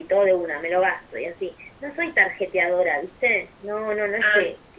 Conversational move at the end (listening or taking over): listening